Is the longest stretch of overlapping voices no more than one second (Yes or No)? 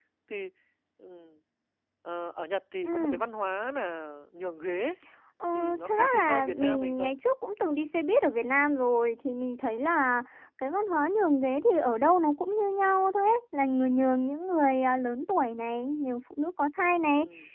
No